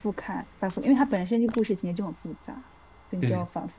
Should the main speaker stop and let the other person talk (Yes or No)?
No